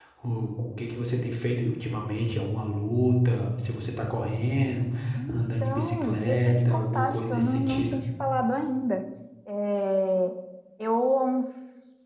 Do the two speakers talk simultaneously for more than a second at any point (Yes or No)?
Yes